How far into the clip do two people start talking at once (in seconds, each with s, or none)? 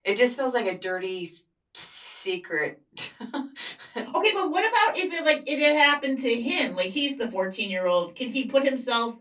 none